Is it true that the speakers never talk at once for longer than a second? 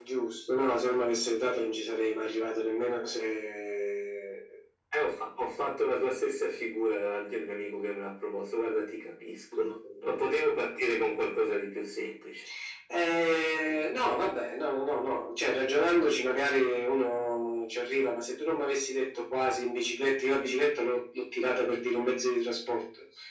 Yes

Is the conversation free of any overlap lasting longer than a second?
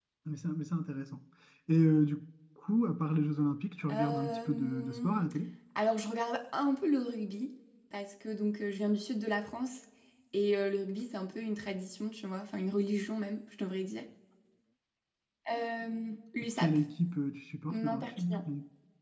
No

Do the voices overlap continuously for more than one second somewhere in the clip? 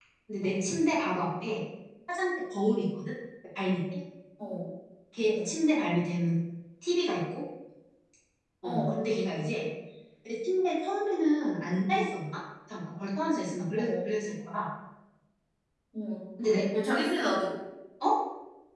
No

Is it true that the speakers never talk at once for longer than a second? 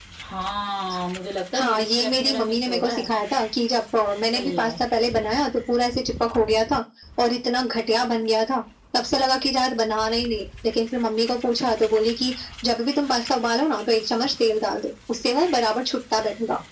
No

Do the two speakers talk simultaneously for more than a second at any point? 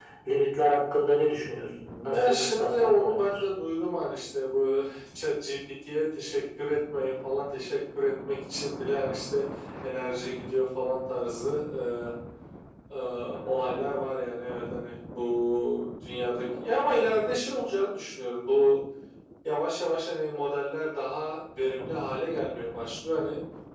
Yes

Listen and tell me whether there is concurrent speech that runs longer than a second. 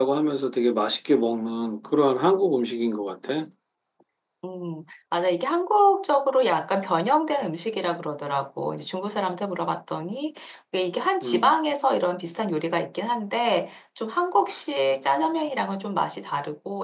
No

